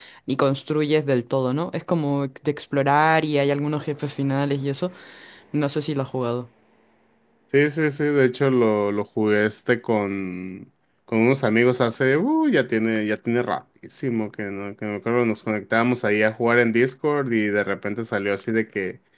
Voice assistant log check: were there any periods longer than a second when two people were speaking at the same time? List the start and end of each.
none

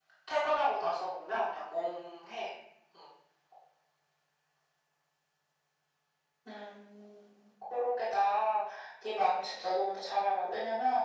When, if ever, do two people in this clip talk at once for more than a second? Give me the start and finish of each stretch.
none

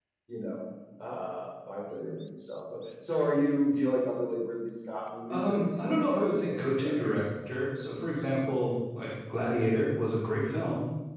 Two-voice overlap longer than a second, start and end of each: 5.3-7.2

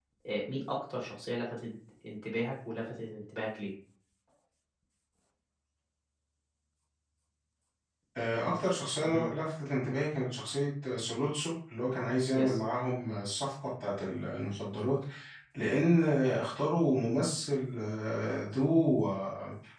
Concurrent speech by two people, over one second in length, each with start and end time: none

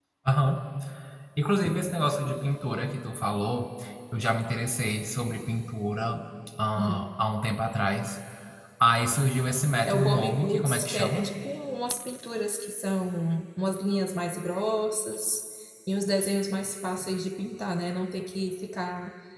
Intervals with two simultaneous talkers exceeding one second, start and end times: 9.9-11.3

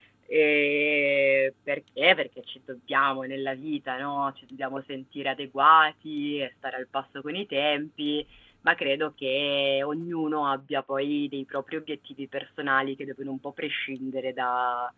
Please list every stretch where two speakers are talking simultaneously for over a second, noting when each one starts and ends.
none

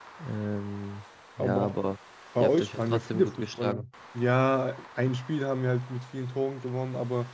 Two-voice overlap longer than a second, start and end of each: 2.4-3.9

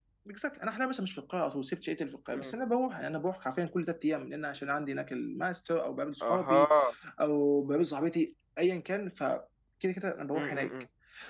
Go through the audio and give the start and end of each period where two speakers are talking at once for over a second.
none

